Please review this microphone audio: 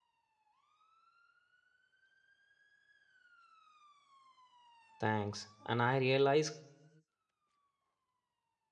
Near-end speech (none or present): present